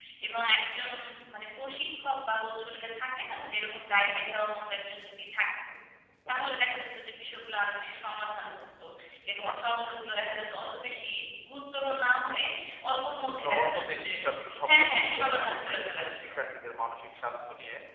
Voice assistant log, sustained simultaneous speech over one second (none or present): present